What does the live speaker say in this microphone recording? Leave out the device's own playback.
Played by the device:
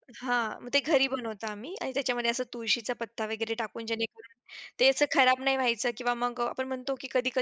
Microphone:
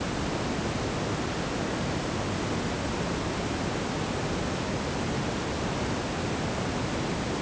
none

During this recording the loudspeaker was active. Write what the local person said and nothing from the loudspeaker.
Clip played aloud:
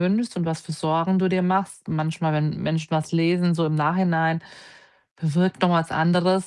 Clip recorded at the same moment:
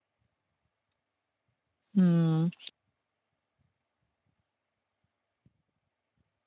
Mhm.

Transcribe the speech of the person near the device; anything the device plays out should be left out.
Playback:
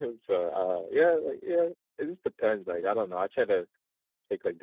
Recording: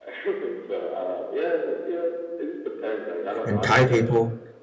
and Thai people.

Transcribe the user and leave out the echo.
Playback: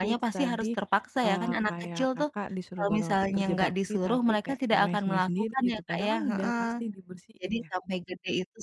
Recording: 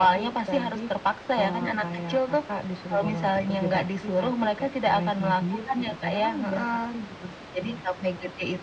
none

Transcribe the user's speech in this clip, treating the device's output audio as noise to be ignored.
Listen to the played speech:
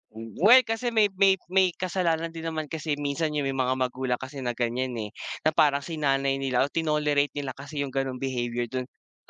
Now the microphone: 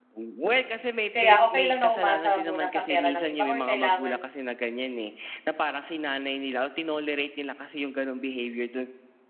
kaya okey lang na umasa muna sa pera ng iba or kailangan

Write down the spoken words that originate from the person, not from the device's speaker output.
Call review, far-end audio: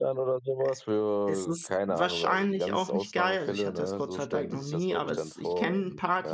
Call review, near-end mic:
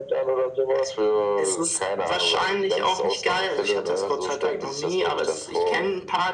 none

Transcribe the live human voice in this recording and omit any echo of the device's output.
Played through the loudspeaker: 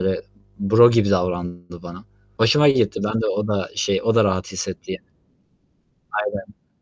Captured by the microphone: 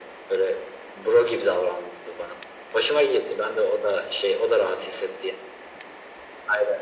none

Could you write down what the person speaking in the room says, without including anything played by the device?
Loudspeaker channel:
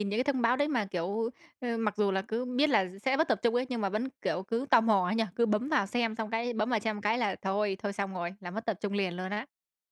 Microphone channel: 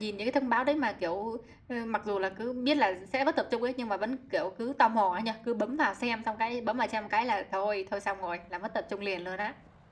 none

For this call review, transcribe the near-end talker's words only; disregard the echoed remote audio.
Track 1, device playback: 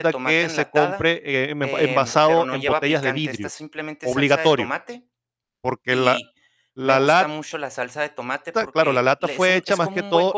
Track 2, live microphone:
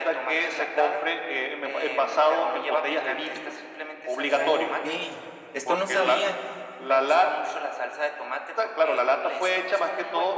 Okey, esto no sabía.

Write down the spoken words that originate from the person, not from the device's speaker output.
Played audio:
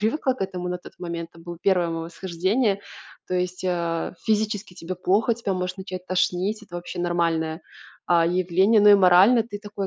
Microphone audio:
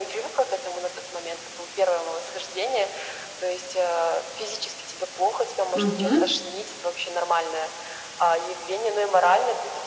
Мгм.

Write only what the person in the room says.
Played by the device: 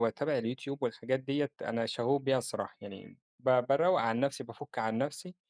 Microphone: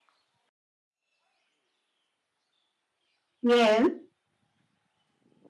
ياه!

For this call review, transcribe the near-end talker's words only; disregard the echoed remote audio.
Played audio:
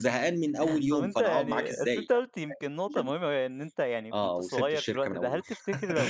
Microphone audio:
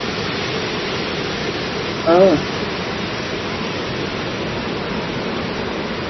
آه.

